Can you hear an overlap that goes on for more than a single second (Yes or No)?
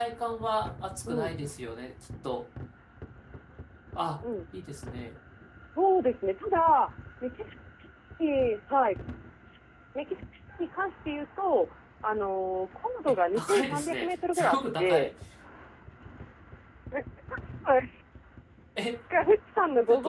Yes